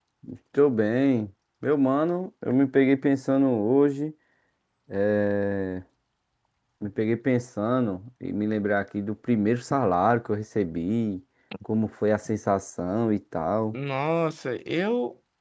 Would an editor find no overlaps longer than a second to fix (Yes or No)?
Yes